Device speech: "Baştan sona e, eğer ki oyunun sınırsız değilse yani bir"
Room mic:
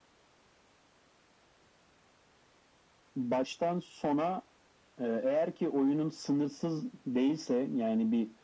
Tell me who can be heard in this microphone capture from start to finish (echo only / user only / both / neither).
echo only